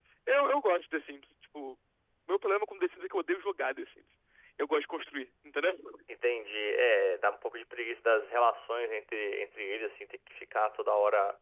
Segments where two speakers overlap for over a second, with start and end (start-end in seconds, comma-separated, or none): none